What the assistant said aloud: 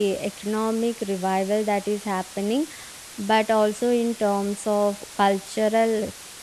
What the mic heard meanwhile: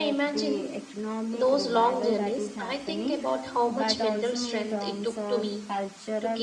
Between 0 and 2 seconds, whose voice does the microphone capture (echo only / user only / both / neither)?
both